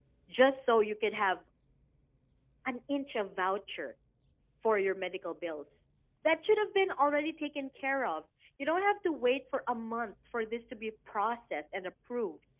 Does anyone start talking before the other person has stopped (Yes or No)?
No